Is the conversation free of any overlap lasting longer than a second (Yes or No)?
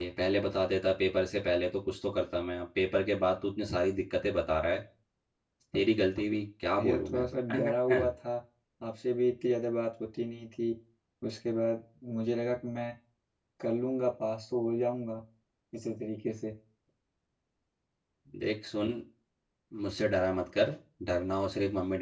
No